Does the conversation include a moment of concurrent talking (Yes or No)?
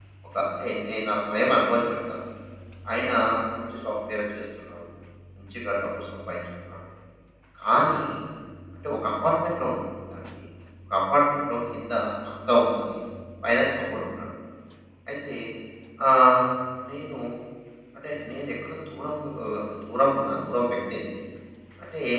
No